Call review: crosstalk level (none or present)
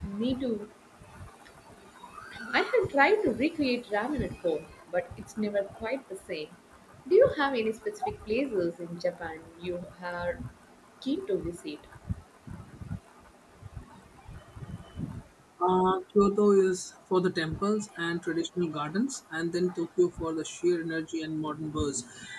none